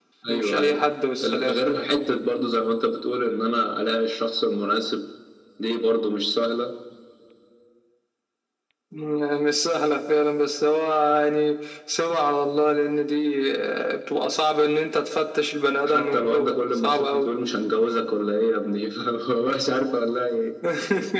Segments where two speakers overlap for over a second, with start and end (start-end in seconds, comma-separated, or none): 15.8-17.3